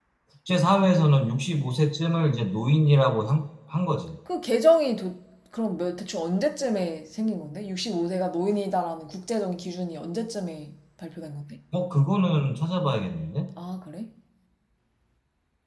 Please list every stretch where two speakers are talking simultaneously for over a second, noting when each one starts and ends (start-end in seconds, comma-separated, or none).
none